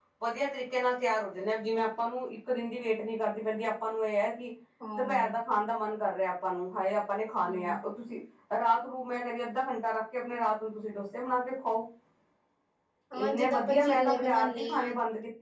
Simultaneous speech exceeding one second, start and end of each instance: 13.2-14.9

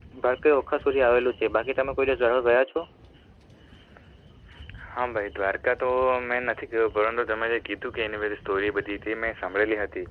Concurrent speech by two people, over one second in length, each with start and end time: none

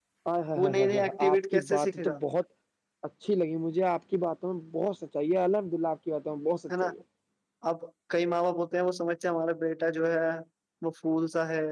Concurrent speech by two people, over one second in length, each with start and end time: 0.6-2.2

